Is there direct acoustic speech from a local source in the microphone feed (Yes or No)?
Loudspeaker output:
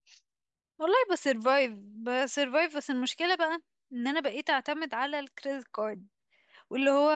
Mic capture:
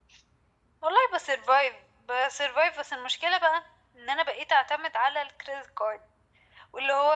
No